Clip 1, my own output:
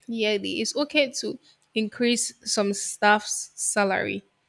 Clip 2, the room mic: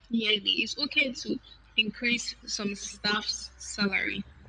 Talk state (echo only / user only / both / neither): echo only